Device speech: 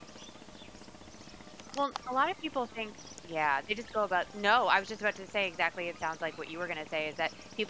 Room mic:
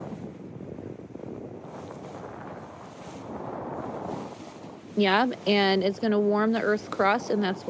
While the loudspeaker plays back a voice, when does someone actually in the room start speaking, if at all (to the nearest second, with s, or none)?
5 s